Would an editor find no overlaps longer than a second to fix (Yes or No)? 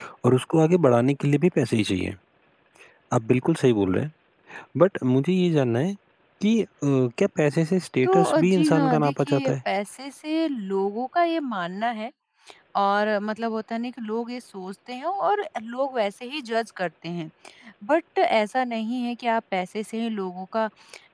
No